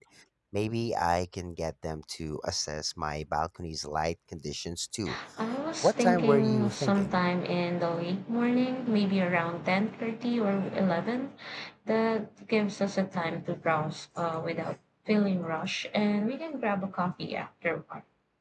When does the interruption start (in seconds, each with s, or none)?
5.8 s